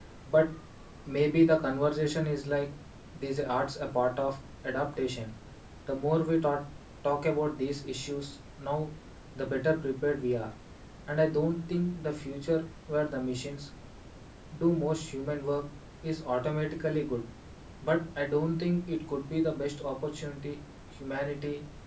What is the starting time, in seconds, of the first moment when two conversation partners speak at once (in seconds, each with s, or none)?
none